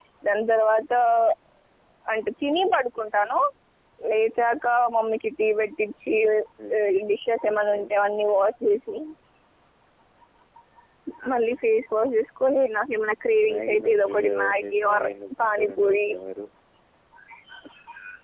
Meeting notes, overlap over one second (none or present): present